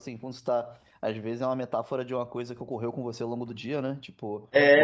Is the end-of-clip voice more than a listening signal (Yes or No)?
Yes